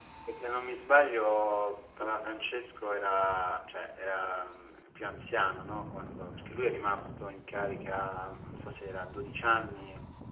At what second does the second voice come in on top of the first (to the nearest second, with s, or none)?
none